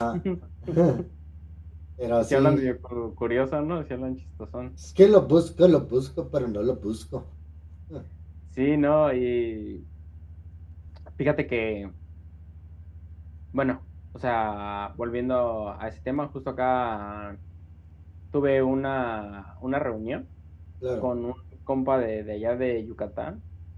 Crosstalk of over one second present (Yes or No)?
No